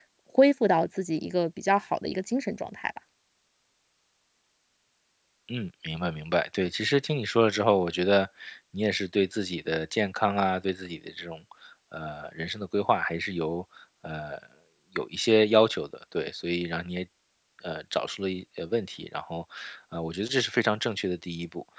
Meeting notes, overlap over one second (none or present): none